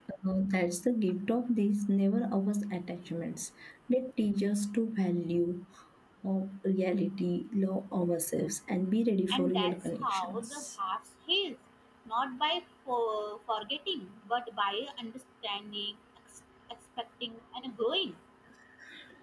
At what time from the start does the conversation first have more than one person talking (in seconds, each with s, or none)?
9.3 s